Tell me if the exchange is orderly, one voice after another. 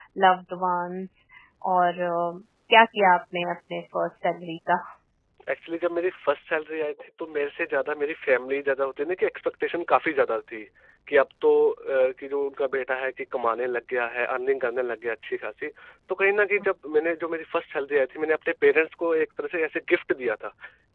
Yes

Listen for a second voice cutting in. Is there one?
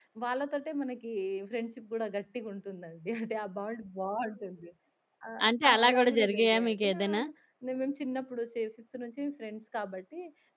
Yes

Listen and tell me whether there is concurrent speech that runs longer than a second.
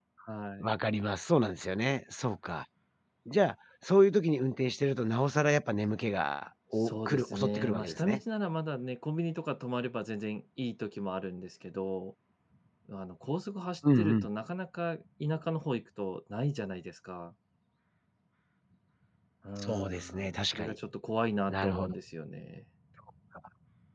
Yes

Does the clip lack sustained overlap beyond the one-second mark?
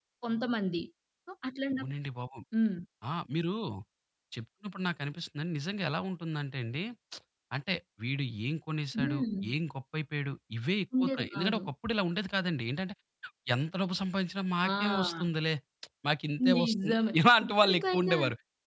No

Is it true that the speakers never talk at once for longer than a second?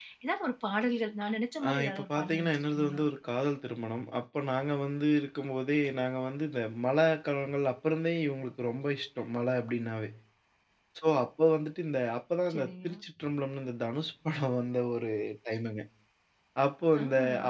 No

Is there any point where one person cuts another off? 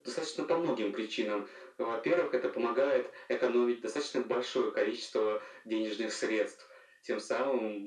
No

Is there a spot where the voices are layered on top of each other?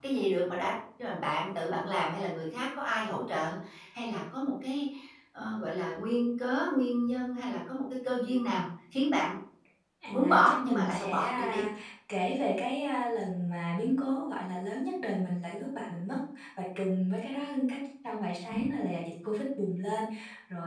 Yes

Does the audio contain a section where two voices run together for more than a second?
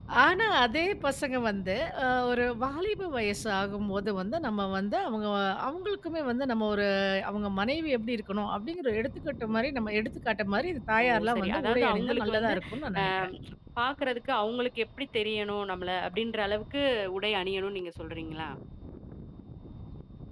Yes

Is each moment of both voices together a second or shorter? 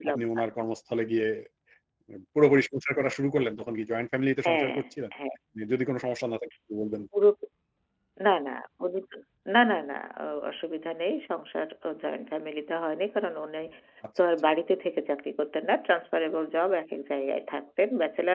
Yes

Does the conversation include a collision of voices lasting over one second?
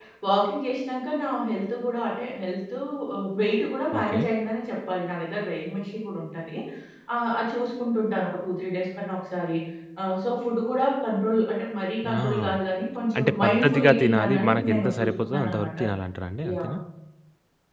Yes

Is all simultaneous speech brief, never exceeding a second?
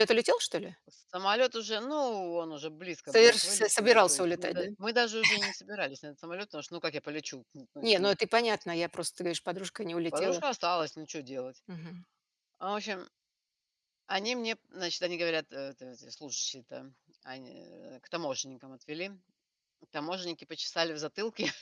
No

